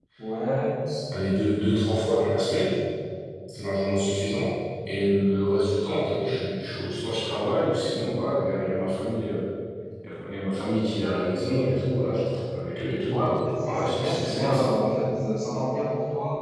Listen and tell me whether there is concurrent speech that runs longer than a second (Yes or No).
Yes